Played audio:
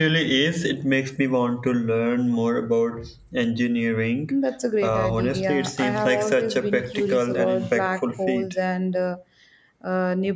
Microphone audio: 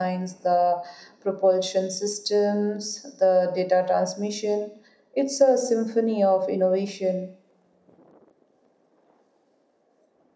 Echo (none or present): none